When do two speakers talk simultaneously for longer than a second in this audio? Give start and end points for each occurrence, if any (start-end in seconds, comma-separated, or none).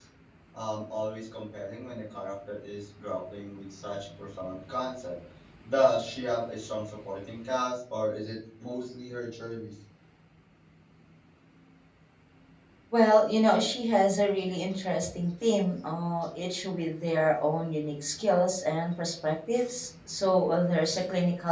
none